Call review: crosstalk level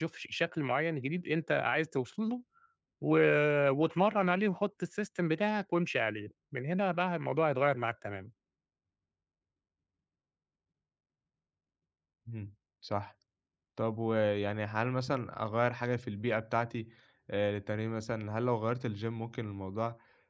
none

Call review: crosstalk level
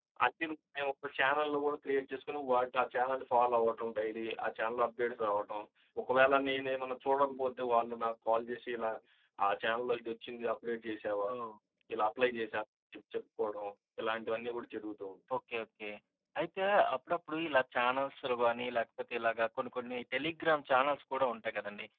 none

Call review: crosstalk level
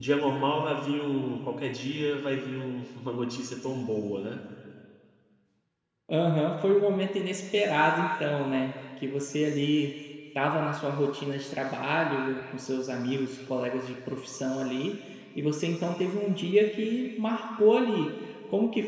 none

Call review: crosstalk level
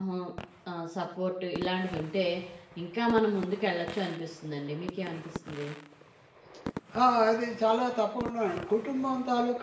none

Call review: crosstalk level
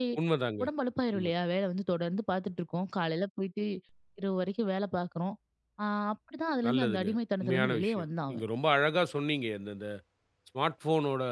present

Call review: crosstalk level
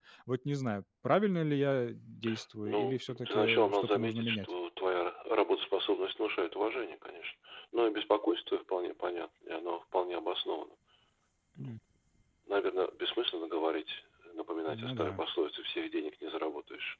present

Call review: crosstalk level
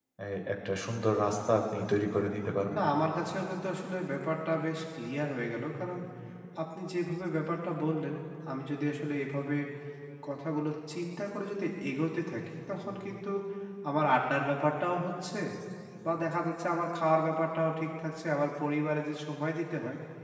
none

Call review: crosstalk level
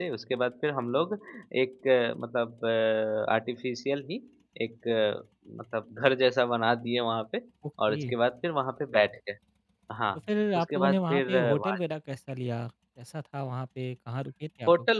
present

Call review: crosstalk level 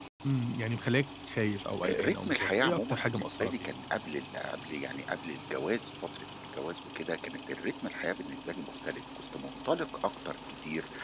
present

